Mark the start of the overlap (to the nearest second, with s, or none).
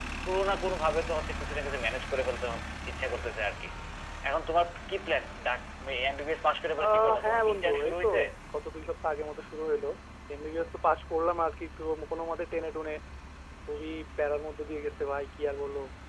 7 s